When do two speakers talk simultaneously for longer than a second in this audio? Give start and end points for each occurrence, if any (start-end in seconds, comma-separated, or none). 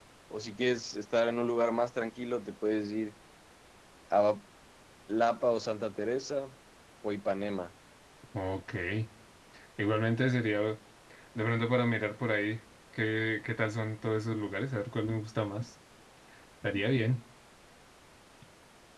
none